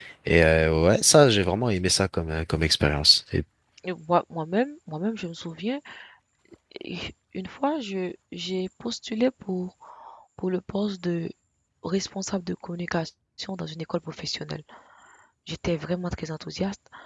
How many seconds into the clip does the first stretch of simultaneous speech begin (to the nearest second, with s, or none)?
none